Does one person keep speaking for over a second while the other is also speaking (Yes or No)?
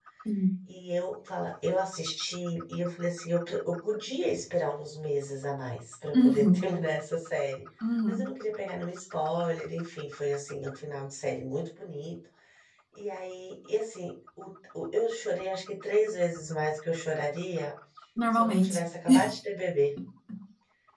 No